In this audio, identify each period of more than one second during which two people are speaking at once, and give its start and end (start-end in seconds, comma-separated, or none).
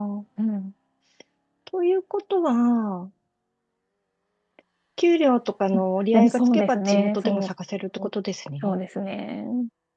6.1-7.5